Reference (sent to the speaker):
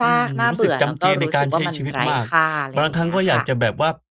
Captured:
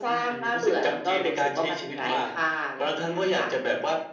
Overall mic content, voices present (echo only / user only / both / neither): echo only